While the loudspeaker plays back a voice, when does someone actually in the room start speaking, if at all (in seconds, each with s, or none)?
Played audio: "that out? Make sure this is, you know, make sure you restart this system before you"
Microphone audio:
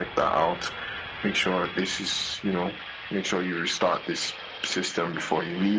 none